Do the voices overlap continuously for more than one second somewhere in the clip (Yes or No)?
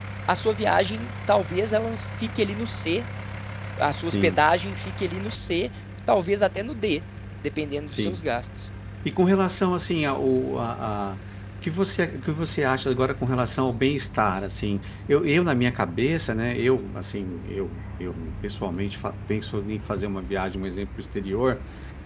No